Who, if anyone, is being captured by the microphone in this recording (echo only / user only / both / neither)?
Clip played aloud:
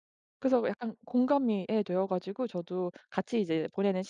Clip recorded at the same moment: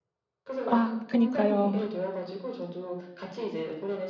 both